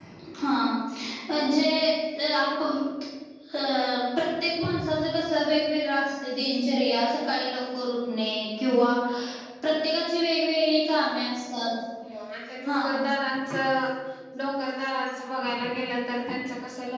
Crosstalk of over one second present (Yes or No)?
No